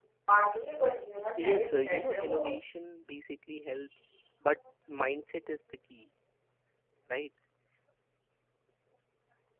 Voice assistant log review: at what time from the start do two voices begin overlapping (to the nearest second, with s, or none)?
1 s